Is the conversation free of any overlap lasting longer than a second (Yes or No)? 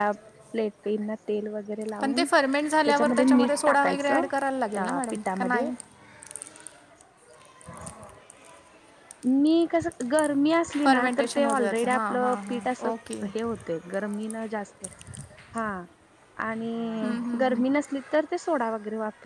No